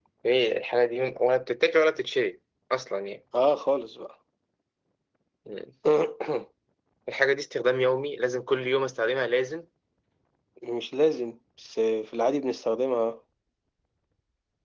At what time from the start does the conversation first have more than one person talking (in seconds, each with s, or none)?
none